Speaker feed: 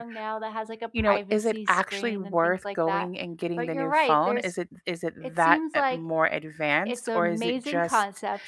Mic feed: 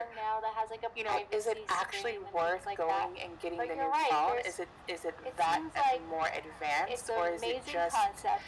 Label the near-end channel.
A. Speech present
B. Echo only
B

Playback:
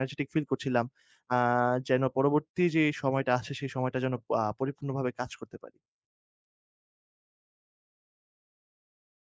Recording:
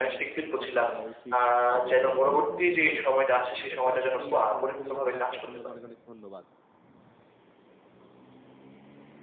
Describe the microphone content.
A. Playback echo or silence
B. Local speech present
B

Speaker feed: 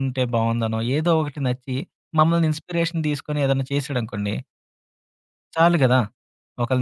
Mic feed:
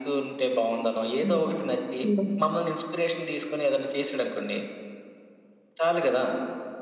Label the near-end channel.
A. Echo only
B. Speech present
B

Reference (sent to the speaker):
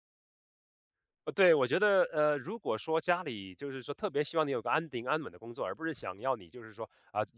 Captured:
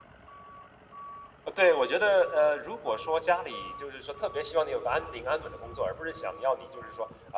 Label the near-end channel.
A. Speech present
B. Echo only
B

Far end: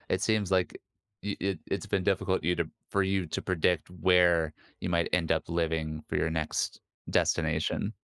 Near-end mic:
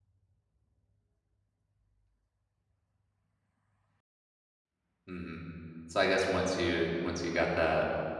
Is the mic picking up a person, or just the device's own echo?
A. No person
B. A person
B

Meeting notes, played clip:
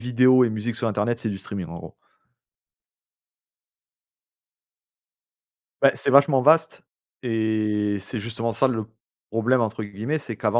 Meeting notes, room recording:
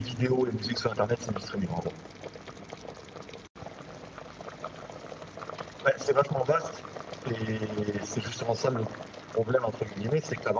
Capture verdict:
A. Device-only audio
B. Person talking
A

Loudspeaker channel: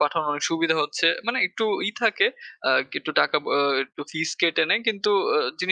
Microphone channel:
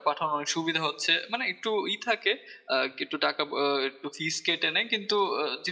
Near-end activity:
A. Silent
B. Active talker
A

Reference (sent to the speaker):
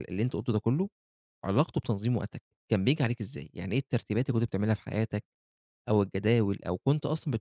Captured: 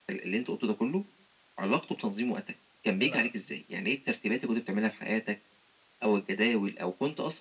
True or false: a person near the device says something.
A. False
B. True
B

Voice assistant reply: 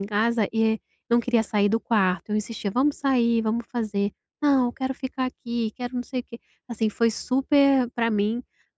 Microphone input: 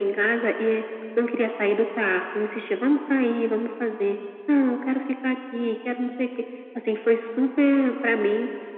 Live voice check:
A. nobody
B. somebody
A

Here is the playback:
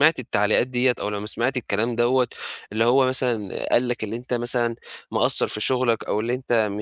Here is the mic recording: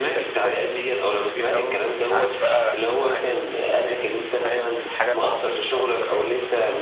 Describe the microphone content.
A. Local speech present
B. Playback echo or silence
A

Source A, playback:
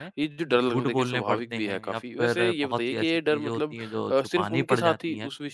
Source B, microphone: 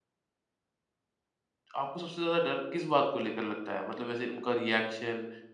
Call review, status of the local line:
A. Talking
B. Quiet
A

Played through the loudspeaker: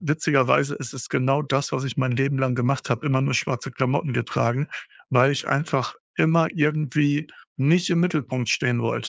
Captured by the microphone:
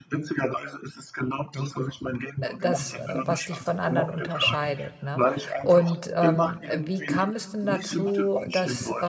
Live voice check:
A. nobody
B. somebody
B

